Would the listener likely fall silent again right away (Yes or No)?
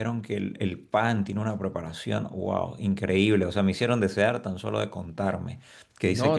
No